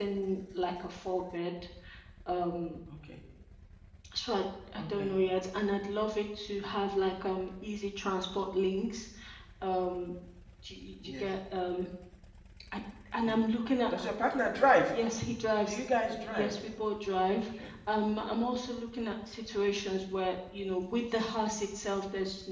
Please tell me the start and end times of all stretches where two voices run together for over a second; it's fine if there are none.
none

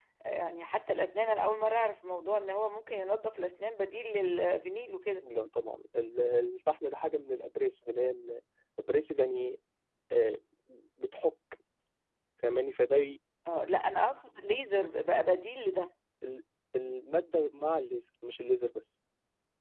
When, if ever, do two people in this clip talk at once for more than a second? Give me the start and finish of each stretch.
none

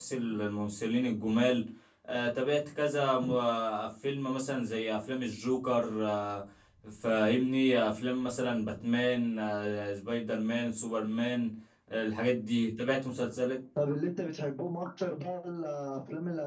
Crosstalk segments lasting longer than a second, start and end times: none

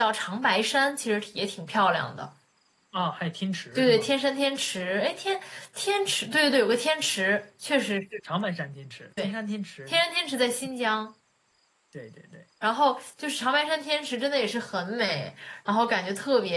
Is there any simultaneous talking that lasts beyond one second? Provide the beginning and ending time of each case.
none

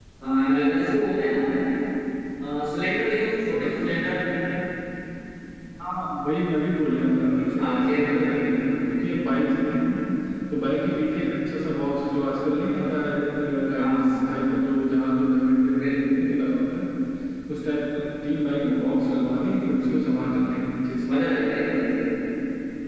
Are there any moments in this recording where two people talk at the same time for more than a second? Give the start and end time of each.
none

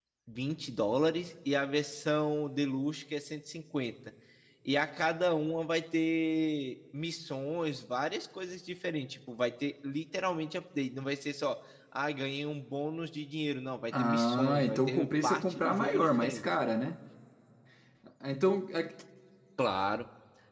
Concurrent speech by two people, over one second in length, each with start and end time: 13.9-16.4

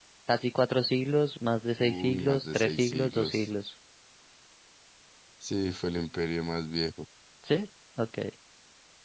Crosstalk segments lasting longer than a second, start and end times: 1.8-3.5

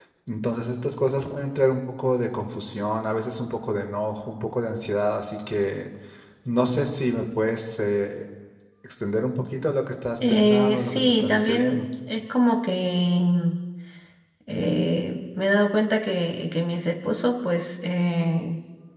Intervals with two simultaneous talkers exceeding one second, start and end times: 10.3-11.9

